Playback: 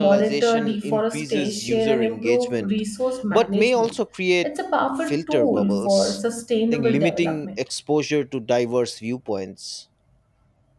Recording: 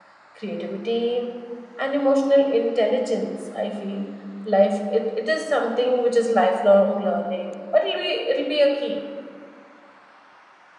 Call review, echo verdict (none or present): none